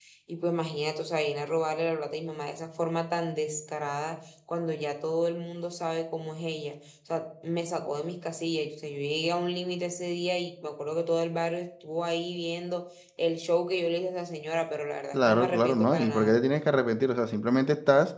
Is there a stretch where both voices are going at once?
Yes, from 15.1 s

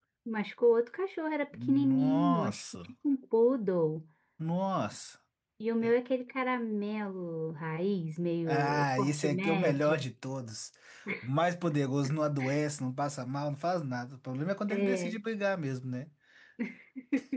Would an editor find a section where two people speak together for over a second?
Yes, from 1.7 s

